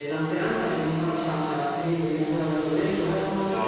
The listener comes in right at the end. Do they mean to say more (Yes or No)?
No